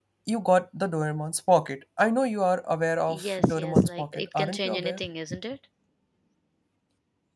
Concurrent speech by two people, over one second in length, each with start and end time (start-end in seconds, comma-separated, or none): 3.1-5.0